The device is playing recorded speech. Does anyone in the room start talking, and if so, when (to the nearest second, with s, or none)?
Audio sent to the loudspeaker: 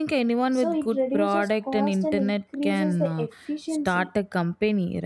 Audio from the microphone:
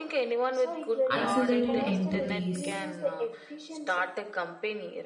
1 s